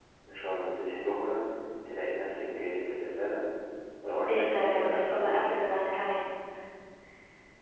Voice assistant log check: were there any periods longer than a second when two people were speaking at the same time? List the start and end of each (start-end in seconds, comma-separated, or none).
4.3-5.6